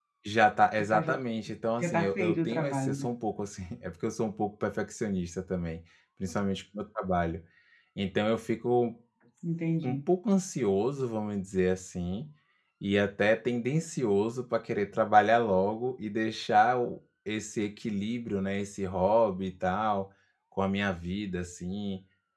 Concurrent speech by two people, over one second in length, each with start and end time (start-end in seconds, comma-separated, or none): 1.8-3.1